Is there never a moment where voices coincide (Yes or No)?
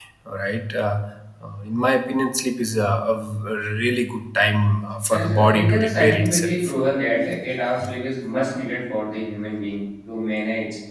No